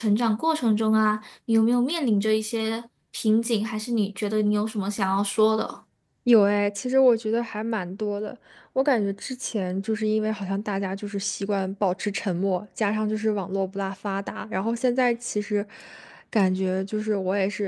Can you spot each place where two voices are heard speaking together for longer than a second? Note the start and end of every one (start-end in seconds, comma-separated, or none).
none